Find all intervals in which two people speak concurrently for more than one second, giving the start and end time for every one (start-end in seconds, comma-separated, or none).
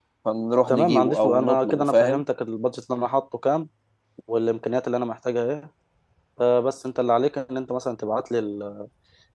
0.7-2.2